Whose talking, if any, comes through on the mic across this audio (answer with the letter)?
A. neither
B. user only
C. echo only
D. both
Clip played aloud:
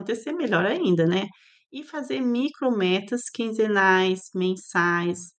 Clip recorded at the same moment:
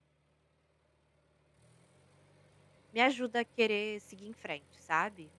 B